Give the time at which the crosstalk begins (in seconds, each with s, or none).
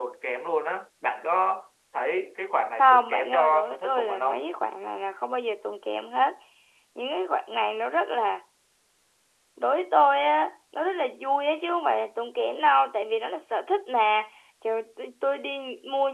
2.8 s